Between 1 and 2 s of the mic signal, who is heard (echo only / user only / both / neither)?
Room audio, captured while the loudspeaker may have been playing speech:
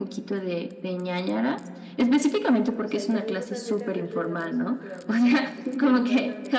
echo only